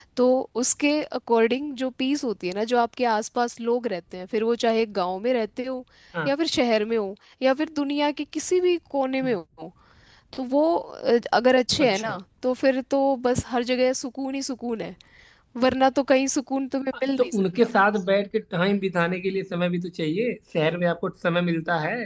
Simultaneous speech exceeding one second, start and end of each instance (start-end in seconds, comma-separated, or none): none